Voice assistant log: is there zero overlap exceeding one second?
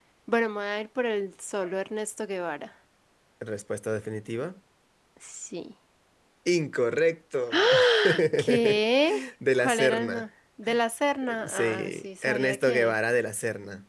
No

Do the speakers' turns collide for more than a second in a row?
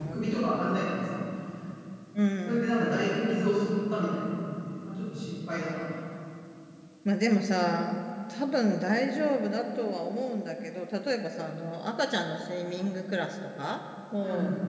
No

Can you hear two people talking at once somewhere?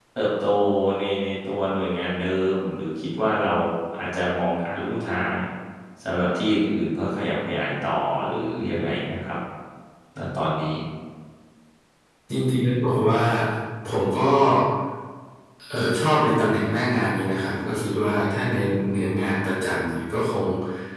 No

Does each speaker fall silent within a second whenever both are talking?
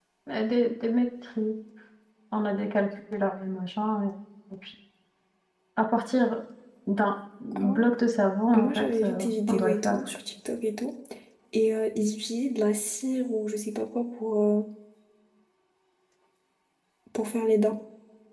No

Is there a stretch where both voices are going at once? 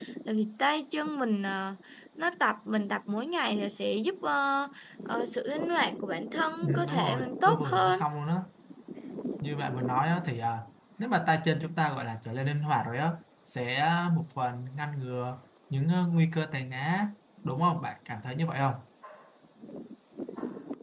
Yes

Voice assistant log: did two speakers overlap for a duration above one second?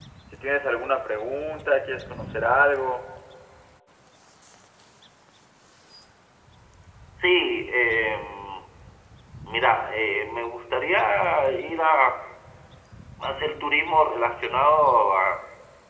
No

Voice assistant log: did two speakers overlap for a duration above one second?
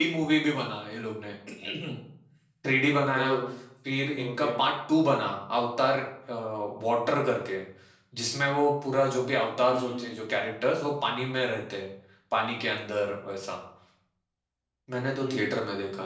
No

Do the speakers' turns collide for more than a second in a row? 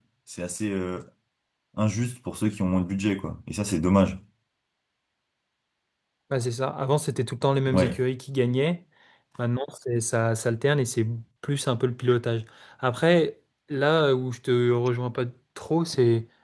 No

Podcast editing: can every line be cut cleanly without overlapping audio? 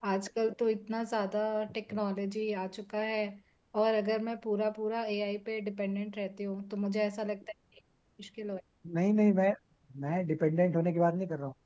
Yes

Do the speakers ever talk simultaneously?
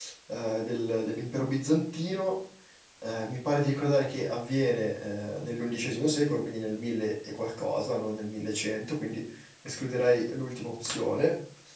No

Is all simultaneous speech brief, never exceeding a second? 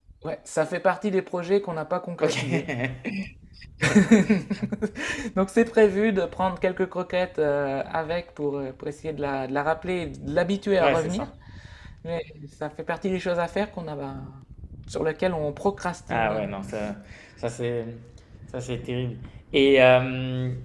Yes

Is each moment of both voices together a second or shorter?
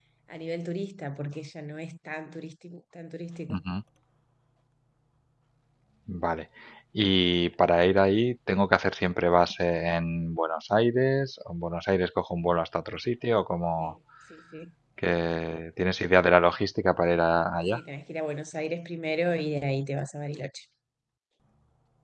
Yes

